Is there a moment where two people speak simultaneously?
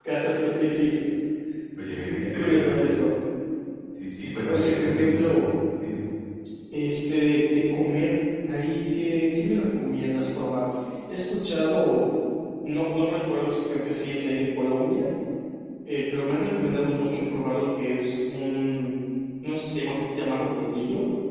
Yes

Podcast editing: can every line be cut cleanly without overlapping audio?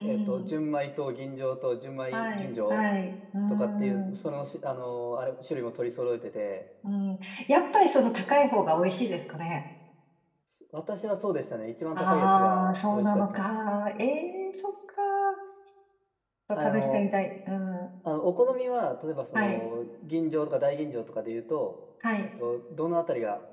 No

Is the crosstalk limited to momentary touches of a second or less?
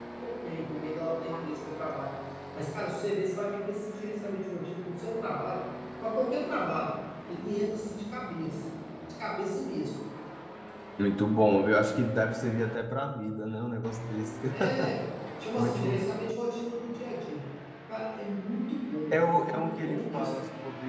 No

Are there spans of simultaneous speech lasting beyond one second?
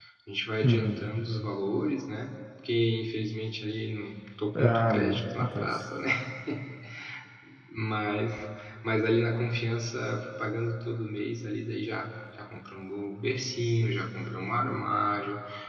Yes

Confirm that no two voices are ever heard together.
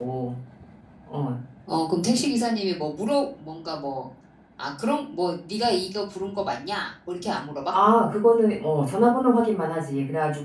Yes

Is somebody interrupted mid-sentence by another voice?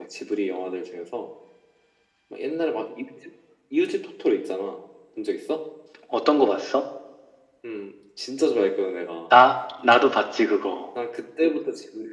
No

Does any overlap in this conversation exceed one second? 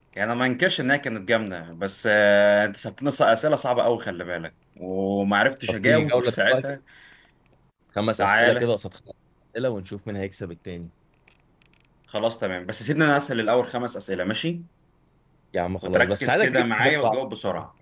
Yes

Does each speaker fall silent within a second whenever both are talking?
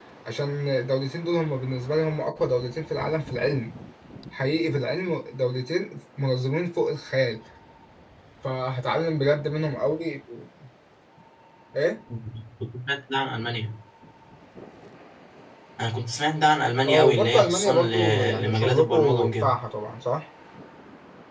No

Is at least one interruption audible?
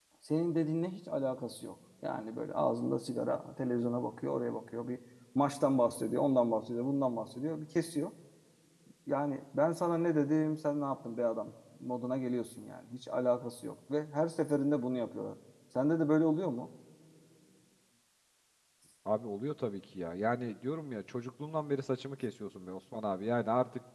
No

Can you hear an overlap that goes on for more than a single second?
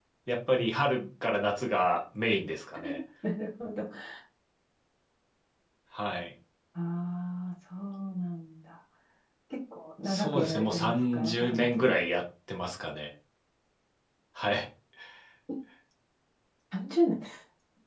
Yes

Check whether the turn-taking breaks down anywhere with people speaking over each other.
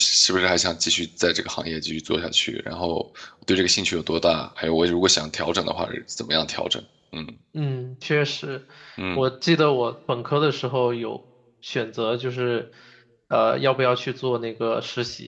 No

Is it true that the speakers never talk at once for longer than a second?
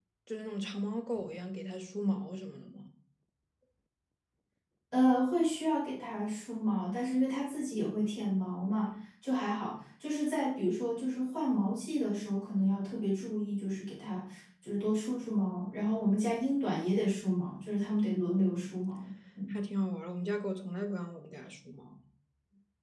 Yes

